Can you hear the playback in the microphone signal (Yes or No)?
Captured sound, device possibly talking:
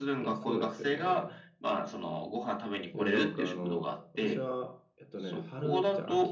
Yes